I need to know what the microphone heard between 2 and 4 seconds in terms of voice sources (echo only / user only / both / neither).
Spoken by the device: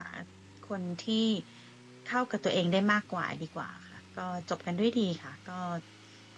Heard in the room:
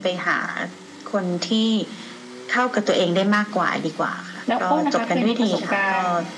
echo only